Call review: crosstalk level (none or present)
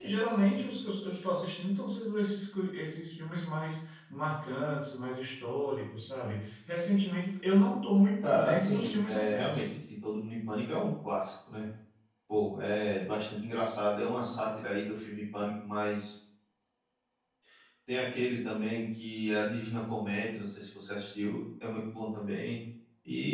present